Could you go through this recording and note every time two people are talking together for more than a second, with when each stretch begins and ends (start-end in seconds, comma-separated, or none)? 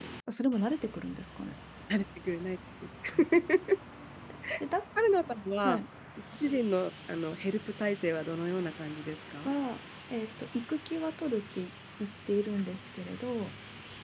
none